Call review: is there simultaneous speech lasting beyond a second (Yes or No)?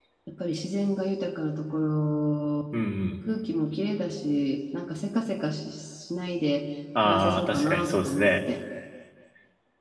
Yes